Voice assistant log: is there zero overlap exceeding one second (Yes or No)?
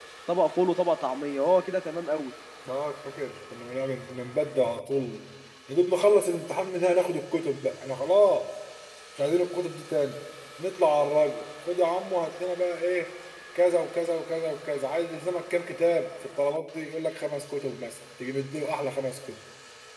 Yes